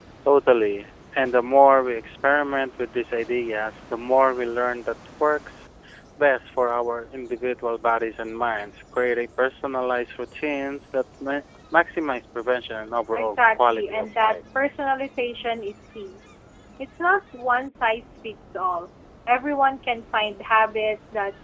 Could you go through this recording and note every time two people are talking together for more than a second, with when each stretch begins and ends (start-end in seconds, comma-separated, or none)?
13.1-14.4